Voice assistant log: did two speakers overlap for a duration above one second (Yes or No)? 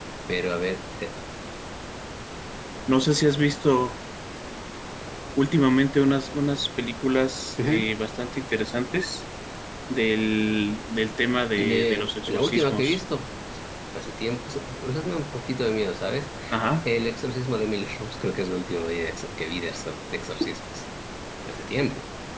Yes